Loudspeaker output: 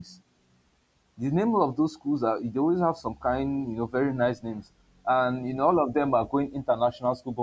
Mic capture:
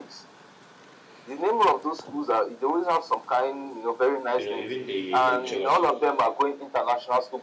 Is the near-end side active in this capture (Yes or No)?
Yes